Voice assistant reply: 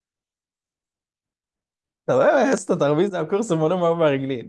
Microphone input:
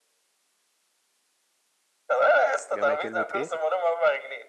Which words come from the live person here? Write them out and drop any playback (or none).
جمع كلمه ايه